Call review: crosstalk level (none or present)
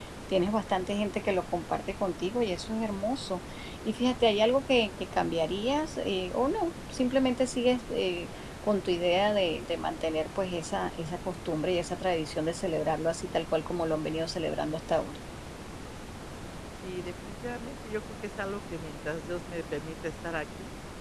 none